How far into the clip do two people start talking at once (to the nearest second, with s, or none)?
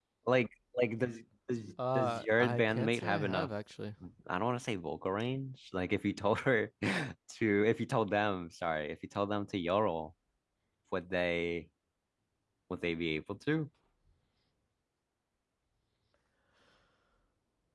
2 s